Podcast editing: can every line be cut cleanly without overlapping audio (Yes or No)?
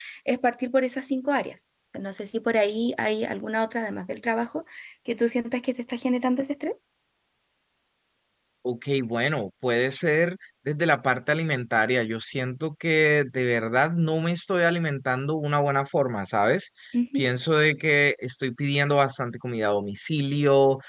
Yes